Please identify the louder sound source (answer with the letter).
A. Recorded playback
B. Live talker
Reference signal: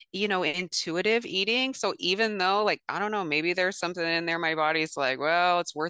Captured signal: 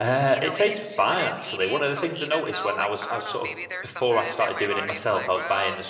B